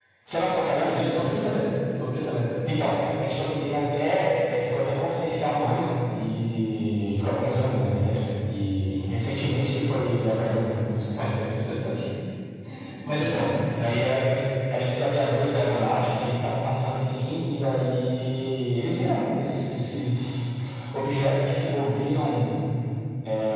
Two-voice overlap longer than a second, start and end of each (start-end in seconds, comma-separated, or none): none